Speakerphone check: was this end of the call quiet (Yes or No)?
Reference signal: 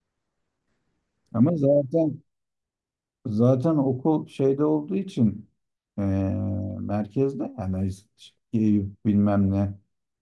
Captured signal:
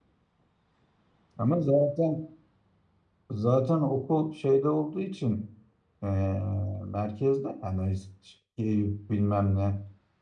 Yes